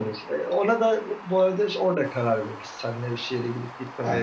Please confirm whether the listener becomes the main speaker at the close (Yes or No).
No